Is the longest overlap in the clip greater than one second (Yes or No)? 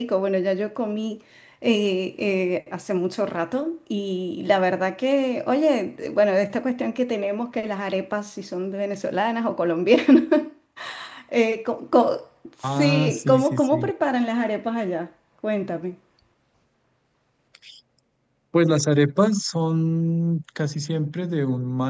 Yes